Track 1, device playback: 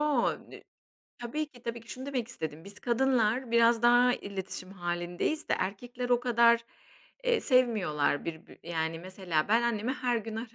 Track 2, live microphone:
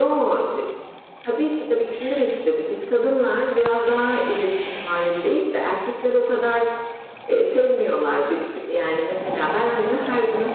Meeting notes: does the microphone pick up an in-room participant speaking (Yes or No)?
No